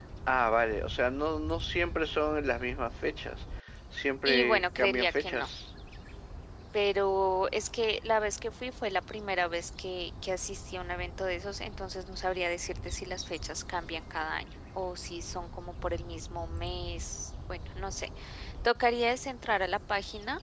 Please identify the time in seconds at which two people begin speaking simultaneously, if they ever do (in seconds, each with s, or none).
4.2 s